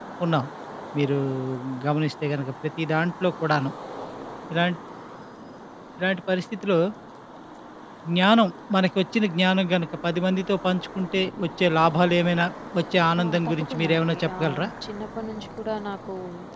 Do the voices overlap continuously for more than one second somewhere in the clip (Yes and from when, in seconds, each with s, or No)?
Yes, from 13.2 s